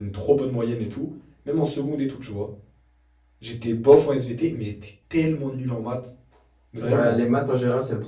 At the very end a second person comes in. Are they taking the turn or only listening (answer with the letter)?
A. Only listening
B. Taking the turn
B